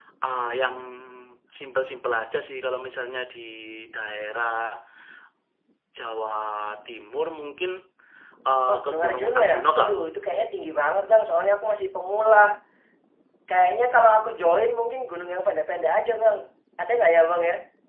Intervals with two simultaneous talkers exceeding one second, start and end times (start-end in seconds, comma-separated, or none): 8.7-9.9